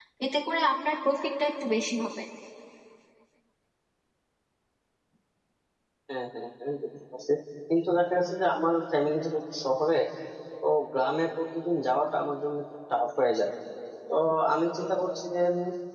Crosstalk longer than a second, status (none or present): none